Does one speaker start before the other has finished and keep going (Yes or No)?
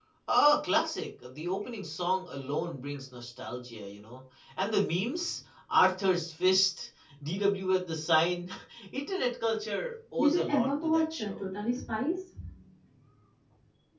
Yes